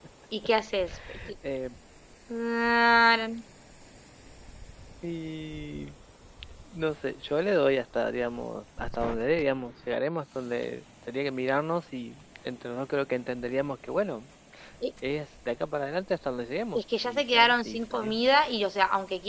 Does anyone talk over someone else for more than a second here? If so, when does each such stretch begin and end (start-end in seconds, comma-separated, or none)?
16.7-18.2